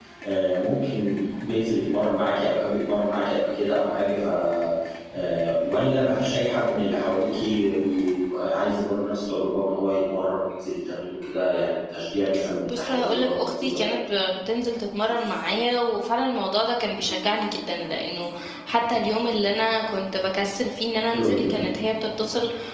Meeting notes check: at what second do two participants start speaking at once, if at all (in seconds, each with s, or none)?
12.7 s